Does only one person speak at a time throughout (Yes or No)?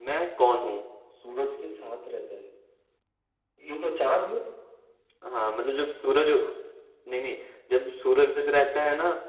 Yes